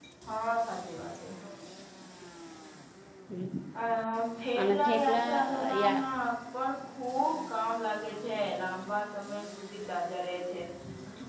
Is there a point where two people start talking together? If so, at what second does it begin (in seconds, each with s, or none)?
4.6 s